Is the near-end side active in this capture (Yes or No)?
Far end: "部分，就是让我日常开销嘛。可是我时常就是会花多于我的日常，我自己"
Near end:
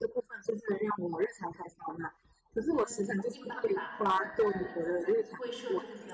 Yes